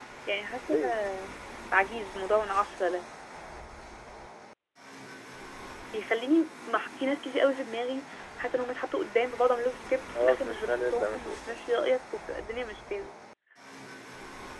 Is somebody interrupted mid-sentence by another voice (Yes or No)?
Yes